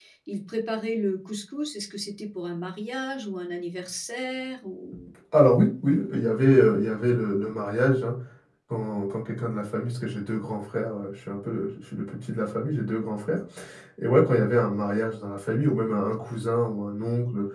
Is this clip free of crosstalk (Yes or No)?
Yes